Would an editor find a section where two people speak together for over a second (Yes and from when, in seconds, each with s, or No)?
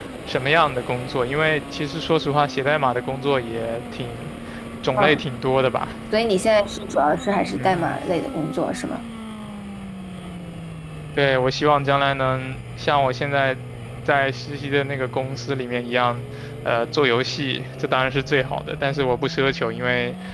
No